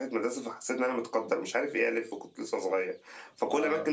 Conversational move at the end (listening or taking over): listening